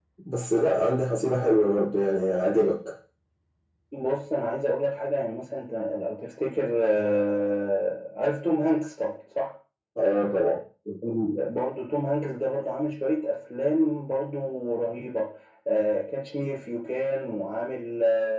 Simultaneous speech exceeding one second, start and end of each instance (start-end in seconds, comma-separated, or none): none